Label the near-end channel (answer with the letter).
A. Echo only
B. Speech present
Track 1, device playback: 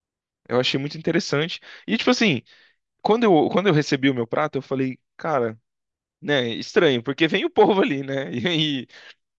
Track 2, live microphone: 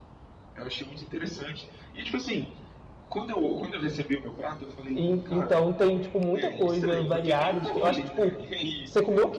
B